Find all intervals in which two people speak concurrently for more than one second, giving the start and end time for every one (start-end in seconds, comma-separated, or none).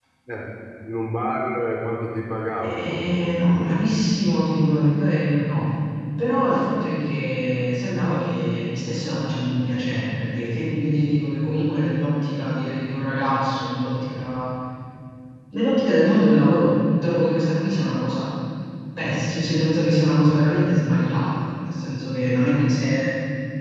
2.6-3.8